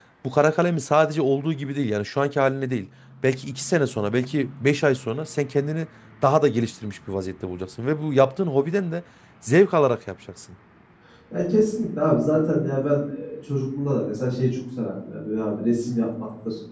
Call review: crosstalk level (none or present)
none